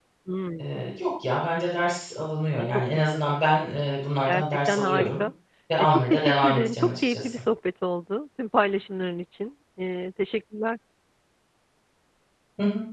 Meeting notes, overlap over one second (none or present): present